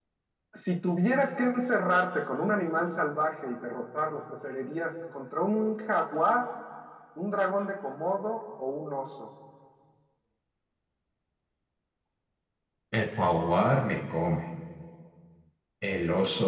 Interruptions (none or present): none